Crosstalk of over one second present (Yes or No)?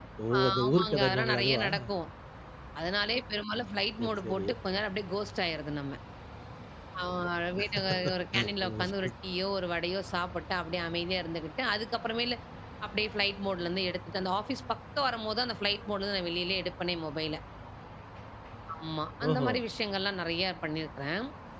Yes